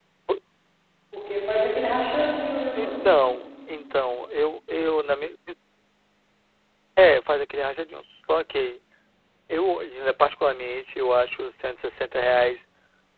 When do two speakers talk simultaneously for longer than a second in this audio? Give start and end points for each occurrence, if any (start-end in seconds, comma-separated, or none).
none